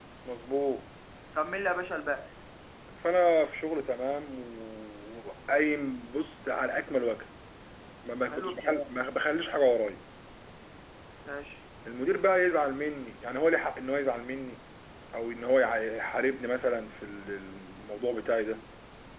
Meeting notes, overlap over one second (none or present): none